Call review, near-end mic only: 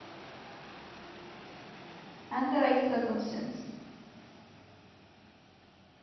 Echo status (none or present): none